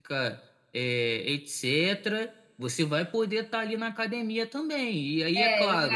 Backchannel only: No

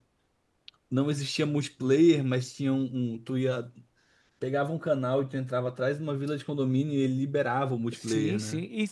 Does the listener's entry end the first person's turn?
Yes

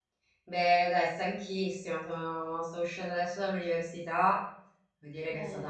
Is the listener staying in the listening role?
Yes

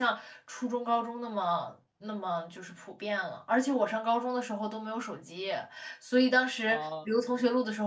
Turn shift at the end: No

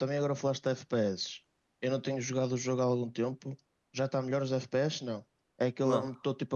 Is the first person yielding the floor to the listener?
No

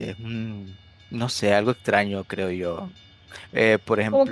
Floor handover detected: No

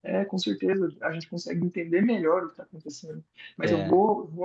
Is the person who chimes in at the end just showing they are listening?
Yes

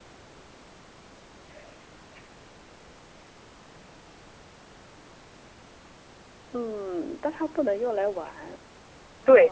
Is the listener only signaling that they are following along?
No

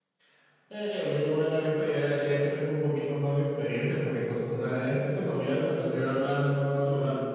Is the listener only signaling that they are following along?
Yes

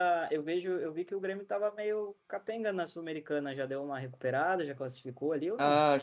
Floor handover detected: Yes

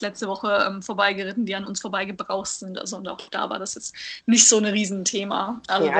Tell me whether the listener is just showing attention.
No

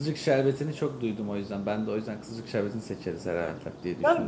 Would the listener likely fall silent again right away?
No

